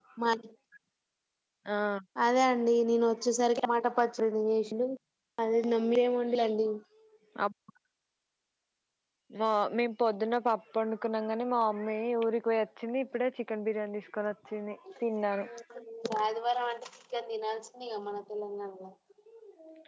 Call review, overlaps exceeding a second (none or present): none